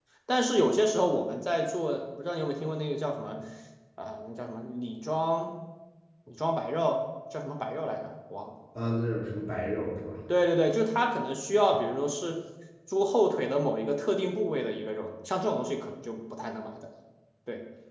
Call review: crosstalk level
none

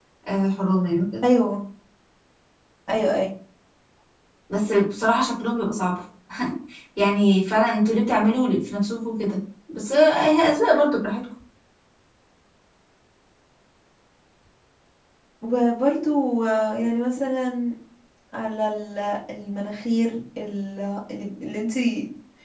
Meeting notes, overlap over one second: none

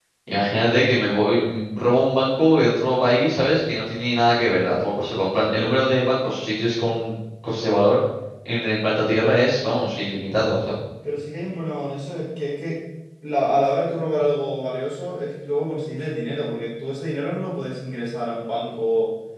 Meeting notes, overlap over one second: none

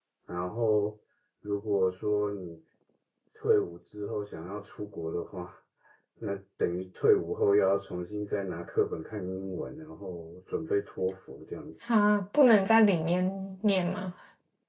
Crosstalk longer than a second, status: none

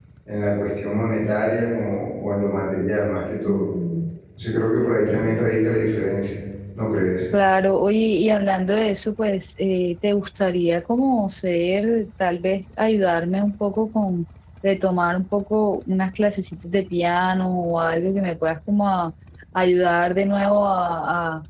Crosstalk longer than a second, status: none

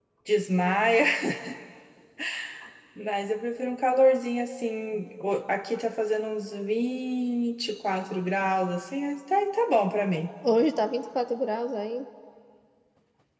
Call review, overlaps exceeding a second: none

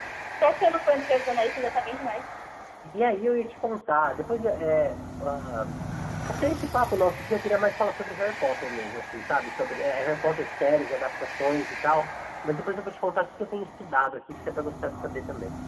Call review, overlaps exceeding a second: none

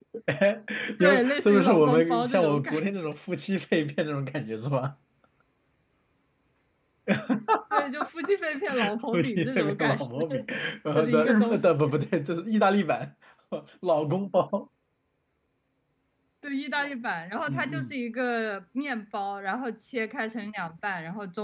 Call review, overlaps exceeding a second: present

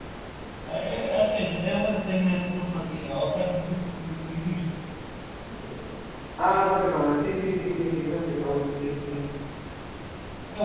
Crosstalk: none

